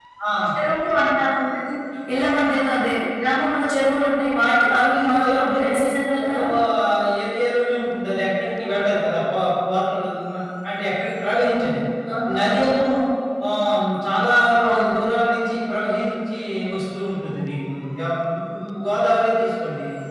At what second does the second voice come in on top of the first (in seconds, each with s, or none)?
4.8 s